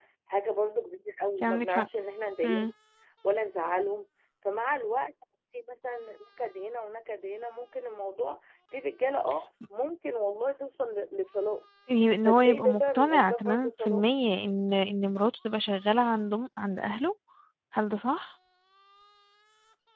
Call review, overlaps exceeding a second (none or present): present